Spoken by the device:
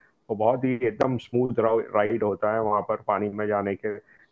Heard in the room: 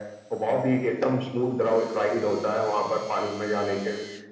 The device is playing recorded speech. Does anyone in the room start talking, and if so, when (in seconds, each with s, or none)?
none